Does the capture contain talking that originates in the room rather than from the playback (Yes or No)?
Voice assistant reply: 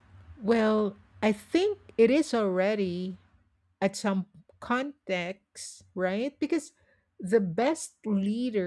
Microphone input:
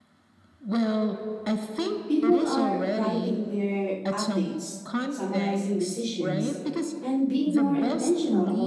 Yes